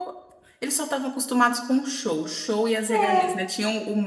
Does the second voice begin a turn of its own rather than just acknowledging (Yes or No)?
No